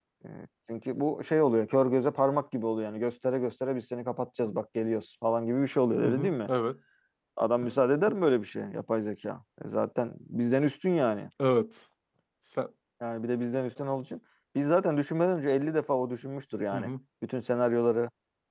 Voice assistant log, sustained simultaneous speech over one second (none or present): none